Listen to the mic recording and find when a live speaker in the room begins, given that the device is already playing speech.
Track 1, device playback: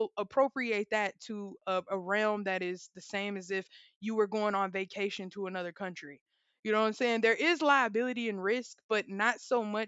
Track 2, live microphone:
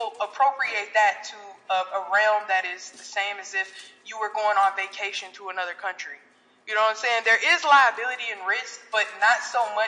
none

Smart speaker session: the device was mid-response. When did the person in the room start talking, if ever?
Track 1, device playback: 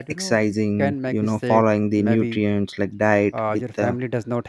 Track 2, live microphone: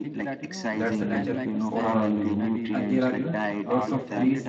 0.7 s

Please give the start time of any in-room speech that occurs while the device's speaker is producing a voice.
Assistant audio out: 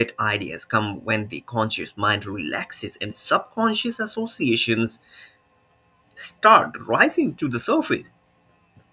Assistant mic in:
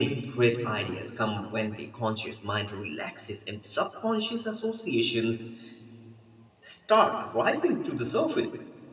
none

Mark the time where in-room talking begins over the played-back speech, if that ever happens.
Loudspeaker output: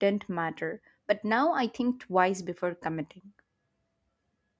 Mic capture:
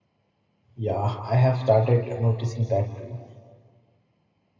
0.7 s

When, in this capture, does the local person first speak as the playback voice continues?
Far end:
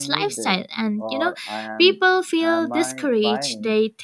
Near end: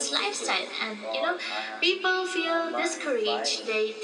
none

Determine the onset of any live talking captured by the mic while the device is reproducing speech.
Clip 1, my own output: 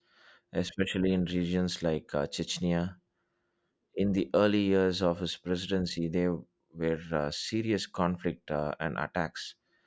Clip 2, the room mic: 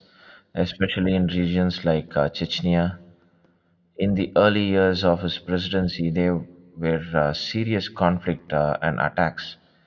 none

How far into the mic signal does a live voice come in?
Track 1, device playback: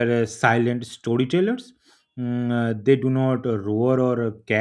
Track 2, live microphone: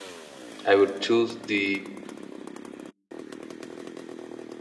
0.7 s

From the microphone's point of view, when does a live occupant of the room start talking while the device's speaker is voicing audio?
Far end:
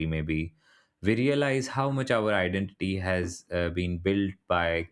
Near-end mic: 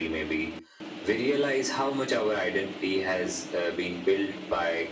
none

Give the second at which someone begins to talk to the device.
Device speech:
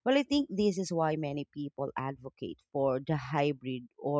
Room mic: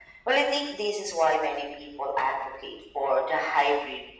none

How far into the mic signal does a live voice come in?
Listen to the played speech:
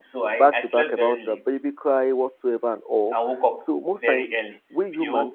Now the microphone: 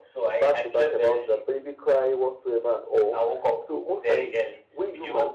none

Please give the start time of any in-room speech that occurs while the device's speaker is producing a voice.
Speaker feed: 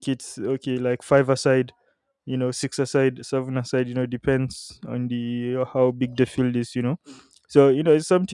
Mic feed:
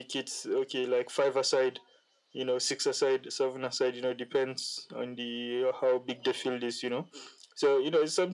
none

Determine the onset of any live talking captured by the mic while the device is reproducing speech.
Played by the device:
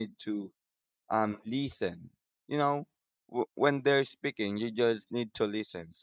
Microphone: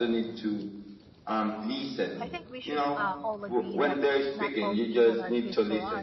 2.2 s

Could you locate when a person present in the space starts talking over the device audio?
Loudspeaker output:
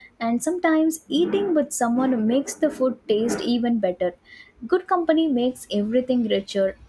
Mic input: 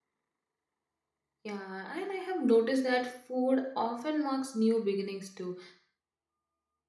1.4 s

